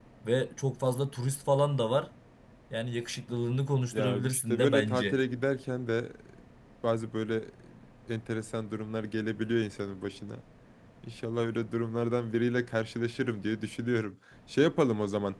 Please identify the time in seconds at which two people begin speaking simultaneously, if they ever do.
3.9 s

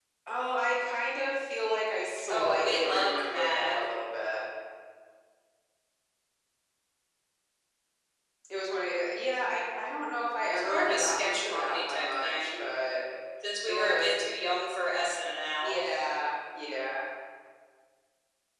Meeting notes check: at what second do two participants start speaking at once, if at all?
2.3 s

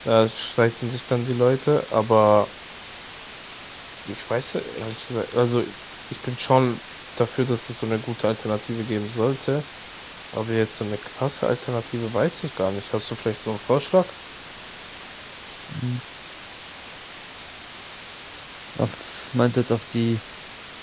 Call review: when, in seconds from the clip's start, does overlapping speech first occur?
none

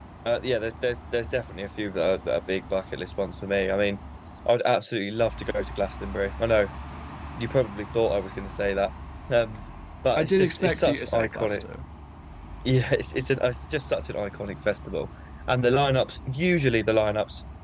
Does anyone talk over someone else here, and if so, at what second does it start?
10.2 s

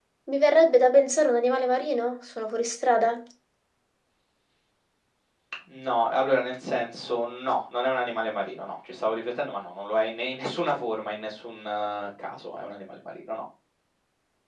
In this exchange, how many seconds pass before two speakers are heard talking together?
none

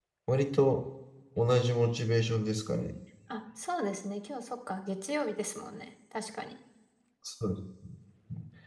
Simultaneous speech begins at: none

